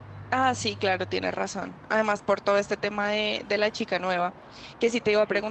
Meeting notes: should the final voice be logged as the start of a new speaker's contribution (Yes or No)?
No